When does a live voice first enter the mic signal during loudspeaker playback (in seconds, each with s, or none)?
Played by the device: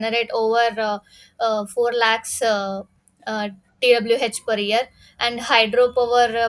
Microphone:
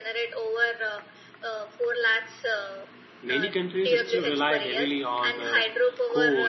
3.2 s